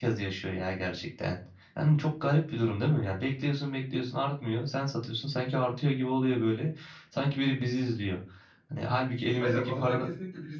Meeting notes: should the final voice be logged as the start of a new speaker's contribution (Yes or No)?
Yes